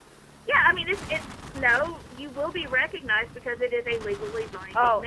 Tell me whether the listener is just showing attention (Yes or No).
No